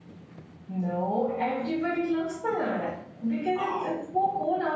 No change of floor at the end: Yes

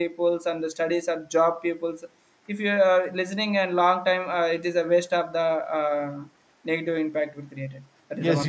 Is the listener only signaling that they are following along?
No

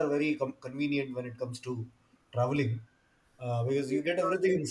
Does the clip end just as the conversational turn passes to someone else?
No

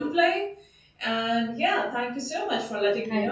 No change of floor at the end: Yes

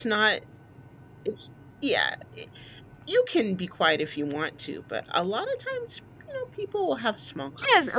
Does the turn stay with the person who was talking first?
No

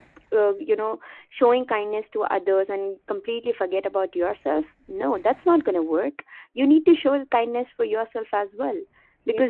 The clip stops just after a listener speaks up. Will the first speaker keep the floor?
Yes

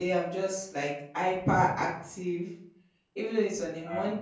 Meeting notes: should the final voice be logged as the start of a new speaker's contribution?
No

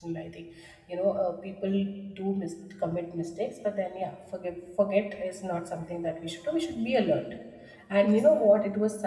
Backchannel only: Yes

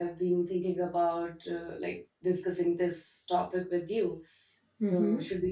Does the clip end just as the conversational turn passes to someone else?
Yes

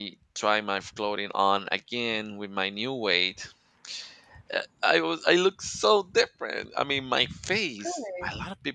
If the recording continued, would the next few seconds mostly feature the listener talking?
No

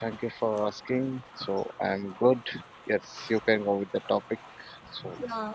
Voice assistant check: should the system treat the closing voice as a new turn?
Yes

